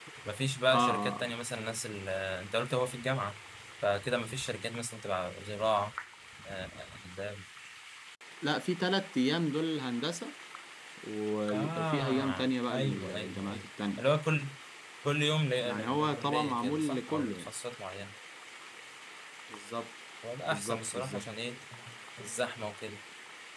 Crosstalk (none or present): present